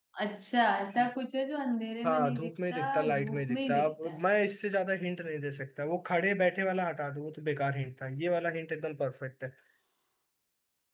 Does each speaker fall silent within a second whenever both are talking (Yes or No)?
No